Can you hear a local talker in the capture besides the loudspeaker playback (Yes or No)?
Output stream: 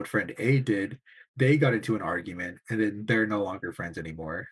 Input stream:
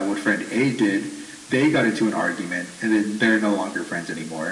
No